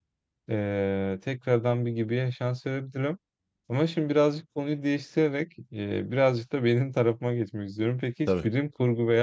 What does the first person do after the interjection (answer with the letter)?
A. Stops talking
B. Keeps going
B